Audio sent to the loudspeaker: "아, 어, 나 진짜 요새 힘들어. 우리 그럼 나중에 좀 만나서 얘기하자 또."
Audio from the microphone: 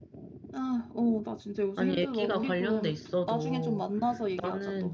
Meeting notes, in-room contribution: present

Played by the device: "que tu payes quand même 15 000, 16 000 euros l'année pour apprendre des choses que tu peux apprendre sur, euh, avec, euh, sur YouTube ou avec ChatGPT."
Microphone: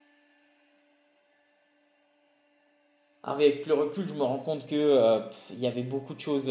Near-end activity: present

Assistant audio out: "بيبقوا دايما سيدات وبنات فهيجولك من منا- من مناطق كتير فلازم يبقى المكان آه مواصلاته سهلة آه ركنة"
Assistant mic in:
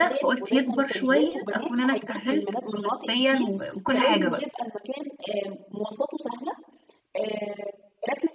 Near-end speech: present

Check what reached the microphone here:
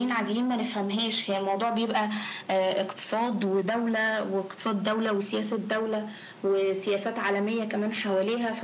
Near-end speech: none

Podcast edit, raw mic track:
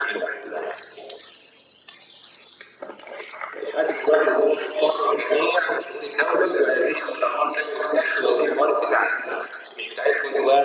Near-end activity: none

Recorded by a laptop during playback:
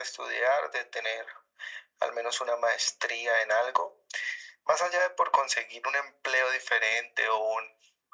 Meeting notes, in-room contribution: none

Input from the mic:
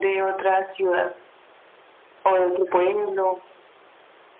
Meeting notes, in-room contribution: none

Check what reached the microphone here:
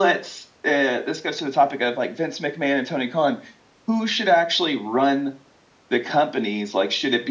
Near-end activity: none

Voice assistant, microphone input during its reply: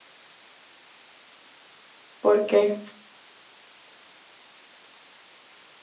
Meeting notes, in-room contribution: present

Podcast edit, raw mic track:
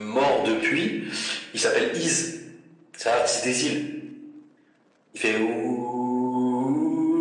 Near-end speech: none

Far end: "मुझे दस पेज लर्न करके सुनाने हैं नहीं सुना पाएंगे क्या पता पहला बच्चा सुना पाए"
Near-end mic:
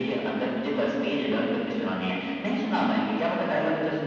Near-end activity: none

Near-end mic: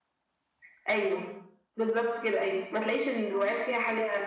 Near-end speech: present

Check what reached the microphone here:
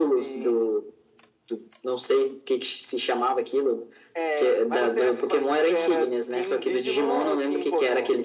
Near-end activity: none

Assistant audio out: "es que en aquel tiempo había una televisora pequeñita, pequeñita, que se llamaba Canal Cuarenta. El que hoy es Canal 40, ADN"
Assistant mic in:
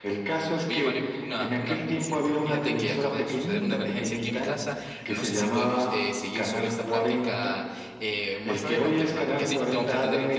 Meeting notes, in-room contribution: present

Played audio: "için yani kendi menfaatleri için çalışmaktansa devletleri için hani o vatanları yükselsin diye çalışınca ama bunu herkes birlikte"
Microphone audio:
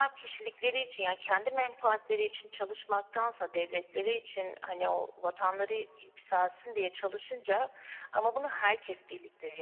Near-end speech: none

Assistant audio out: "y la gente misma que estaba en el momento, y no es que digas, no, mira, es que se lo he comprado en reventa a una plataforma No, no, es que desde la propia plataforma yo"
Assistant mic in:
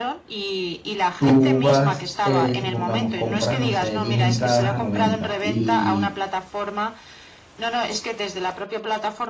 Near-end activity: present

